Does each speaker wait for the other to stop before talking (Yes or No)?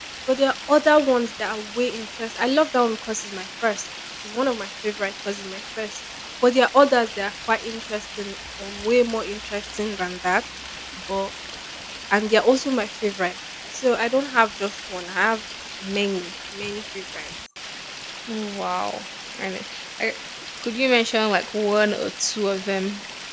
Yes